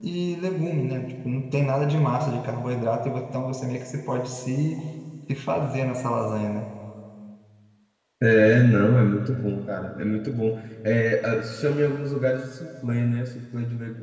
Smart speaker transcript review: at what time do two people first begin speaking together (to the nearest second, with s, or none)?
none